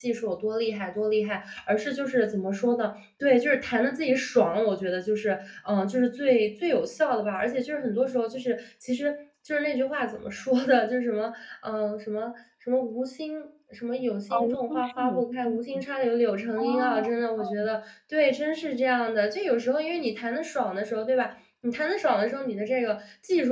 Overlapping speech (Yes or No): Yes